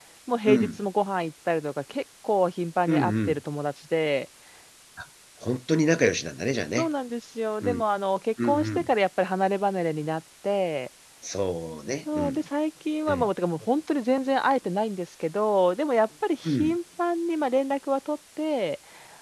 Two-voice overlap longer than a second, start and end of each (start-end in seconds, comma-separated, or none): none